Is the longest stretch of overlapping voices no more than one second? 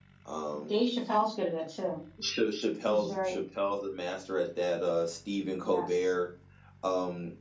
Yes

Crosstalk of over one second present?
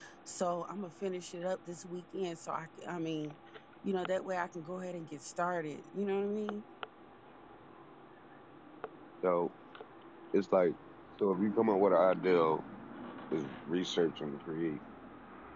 No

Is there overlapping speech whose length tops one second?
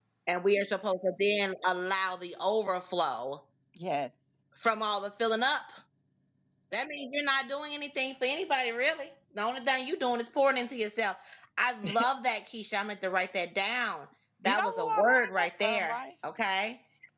Yes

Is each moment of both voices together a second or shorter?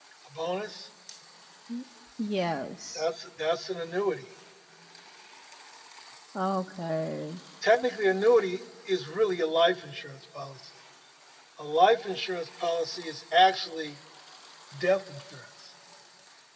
Yes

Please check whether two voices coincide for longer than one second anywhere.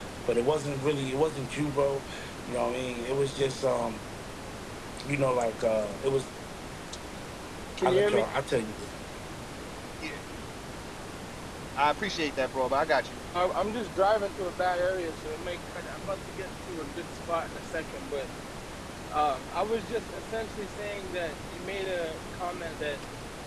No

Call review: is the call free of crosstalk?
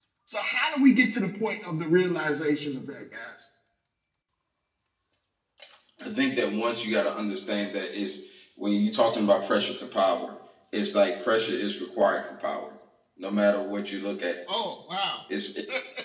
Yes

